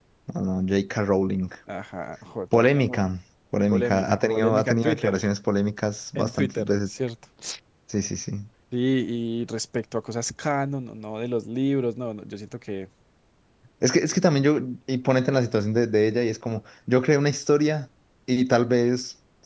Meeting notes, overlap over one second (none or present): present